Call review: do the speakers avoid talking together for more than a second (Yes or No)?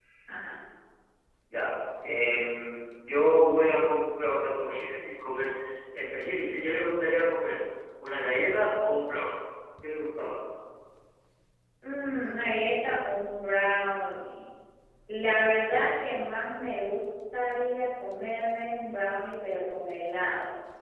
Yes